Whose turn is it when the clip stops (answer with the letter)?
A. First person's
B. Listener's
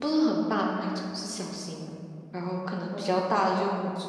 A